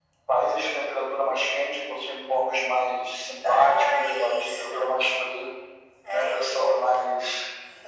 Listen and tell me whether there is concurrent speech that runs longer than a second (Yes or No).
Yes